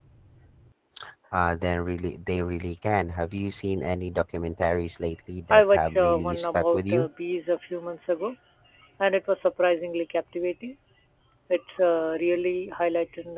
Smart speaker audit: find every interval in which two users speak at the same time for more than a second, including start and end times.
5.5-7.1

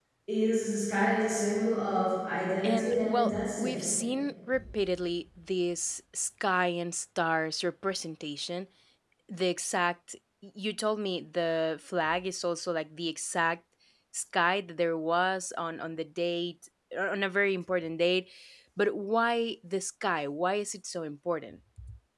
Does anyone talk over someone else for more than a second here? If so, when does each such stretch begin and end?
2.6-3.9

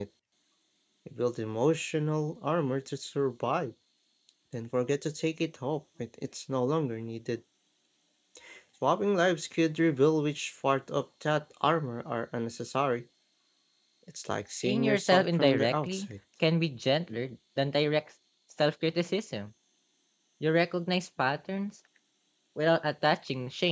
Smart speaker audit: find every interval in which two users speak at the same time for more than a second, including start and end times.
14.5-16.1

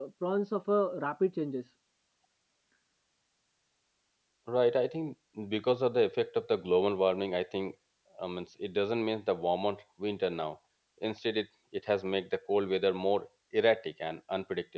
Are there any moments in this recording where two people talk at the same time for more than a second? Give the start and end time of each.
none

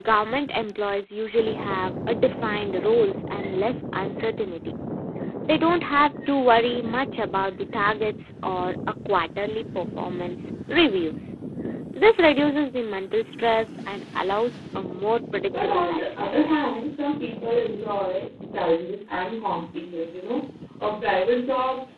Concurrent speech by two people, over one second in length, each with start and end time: 15.6-16.9

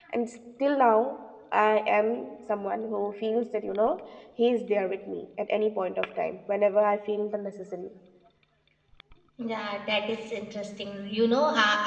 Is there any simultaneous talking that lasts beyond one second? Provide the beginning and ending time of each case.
none

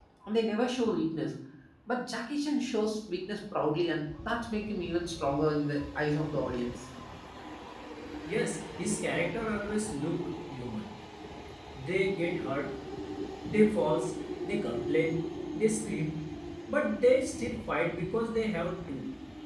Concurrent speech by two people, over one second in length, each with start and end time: none

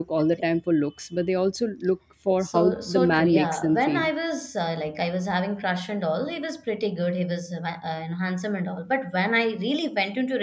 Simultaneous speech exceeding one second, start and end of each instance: 2.4-4.1

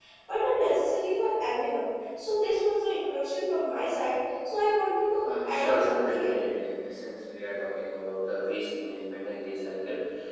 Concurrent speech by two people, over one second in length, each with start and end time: 5.2-6.4

